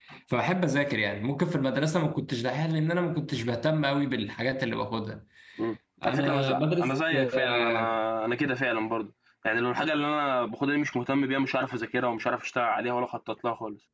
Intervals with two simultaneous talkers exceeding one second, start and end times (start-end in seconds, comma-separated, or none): 6.0-8.0